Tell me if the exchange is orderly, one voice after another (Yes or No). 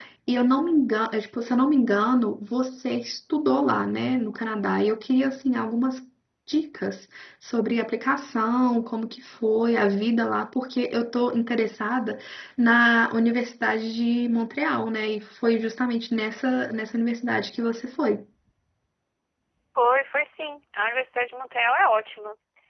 Yes